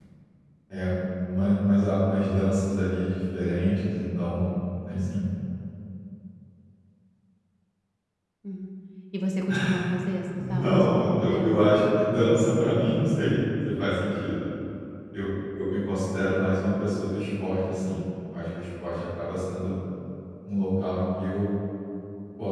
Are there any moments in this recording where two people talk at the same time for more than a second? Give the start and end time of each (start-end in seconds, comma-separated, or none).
10.3-11.6